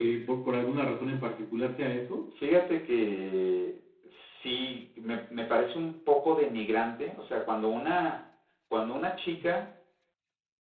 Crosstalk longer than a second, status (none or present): none